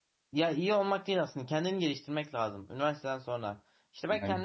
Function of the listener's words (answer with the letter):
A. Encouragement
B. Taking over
A